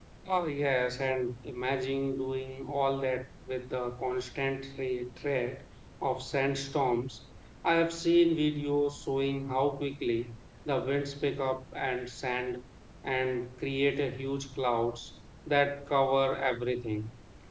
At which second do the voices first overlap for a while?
none

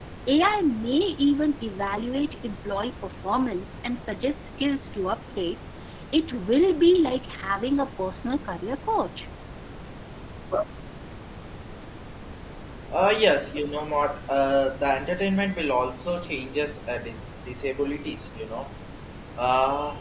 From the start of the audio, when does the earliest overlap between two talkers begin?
none

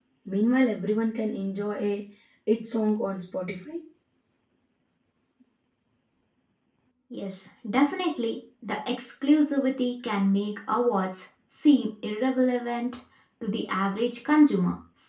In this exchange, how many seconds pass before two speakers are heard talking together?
none

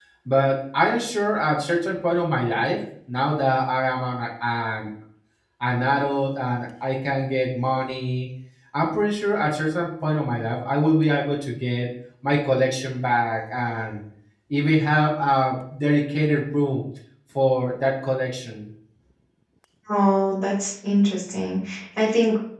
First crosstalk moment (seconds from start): none

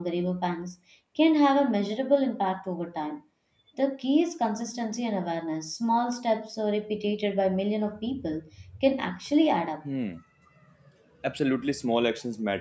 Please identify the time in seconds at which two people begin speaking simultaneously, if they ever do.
none

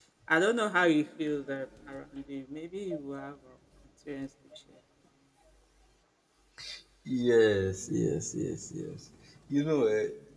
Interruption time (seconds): none

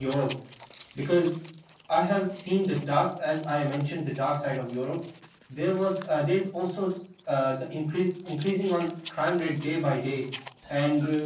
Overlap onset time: none

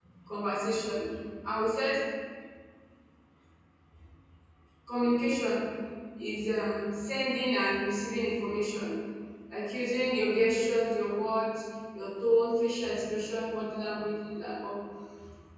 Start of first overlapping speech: none

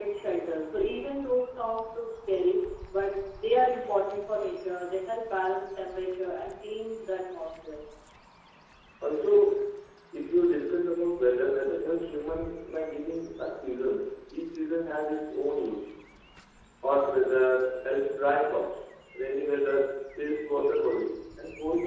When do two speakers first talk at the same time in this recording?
none

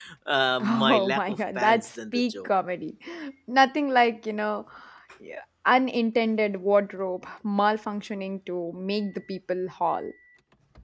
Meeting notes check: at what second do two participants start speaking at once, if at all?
0.6 s

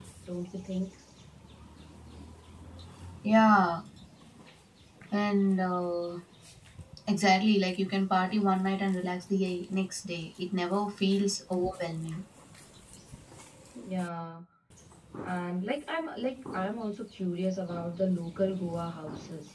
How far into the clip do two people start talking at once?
none

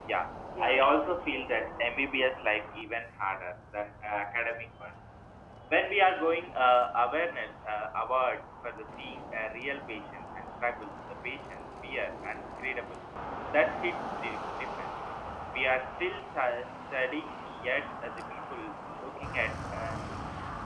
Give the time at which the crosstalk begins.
0.5 s

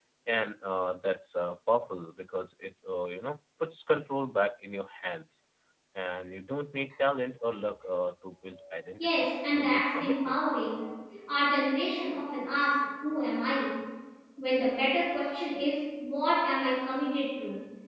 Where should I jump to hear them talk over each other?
9.0 s

